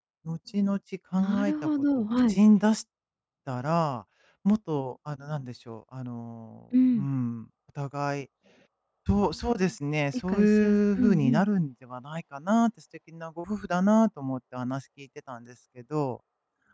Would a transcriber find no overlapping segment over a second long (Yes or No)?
No